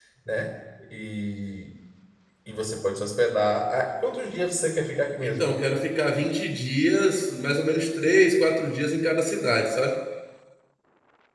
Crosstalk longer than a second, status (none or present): none